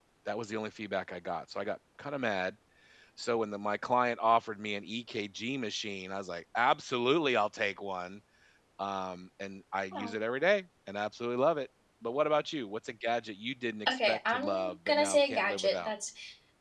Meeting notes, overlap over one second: present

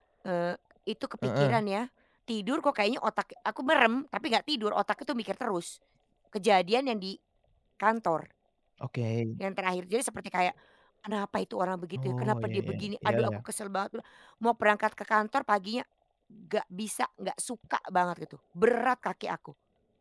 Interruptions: present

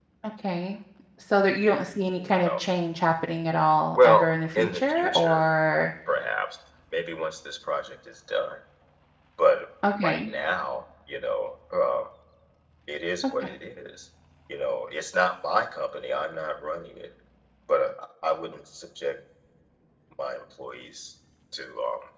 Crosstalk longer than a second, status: present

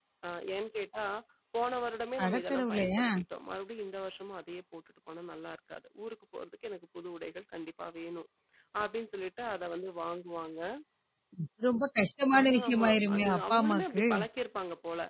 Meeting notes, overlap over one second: present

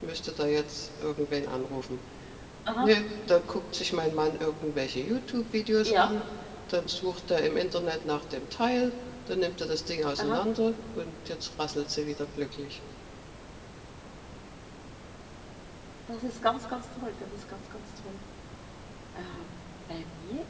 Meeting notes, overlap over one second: none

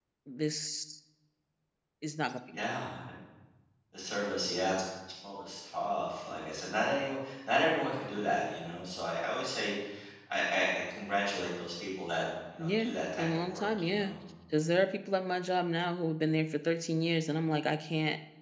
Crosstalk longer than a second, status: present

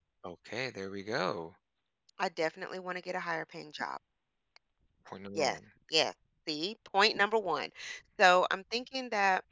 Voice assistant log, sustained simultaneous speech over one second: none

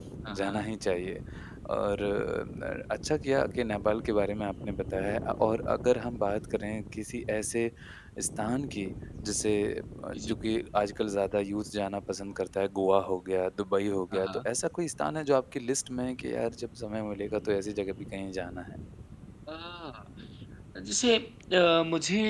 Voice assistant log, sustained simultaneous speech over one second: none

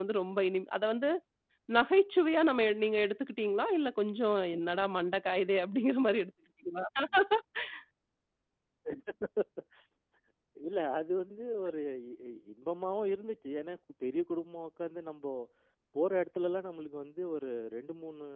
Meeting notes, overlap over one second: none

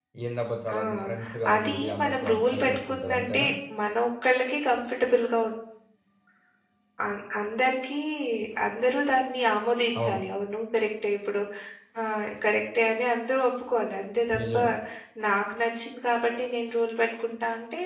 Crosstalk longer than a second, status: present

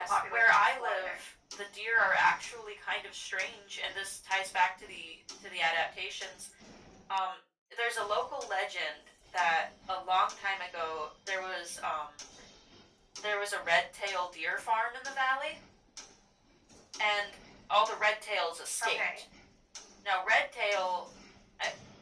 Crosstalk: present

